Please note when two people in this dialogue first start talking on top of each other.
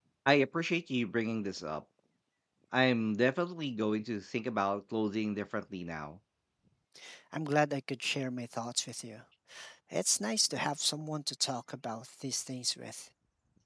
none

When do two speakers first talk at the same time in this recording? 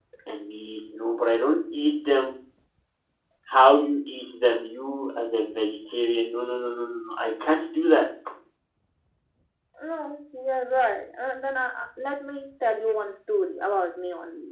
none

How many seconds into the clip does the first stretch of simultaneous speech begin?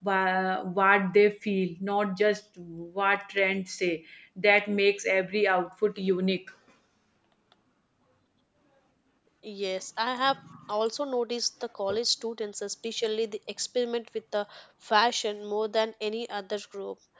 none

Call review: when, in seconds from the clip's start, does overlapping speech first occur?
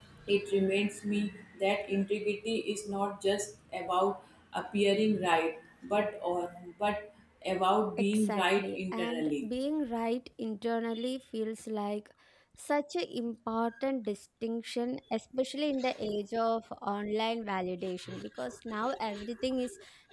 8.1 s

